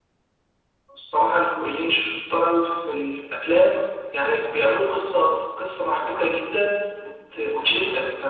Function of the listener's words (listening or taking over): listening